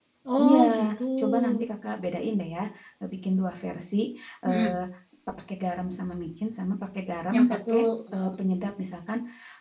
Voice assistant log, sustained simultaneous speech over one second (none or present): none